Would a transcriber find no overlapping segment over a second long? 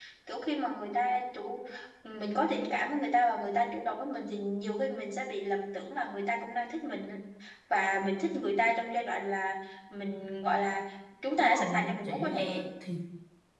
No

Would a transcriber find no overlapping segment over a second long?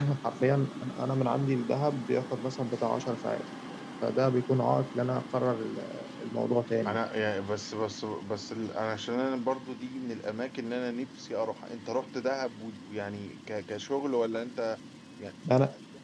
Yes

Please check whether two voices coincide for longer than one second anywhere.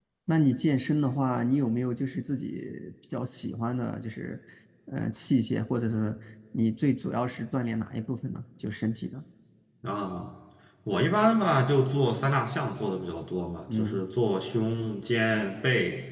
No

